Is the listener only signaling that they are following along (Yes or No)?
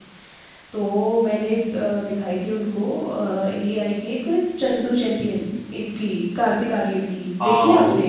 No